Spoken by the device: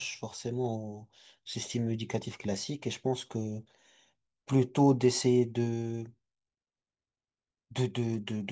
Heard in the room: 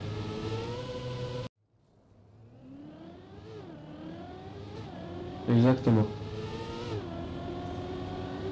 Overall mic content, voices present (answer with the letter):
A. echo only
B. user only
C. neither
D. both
B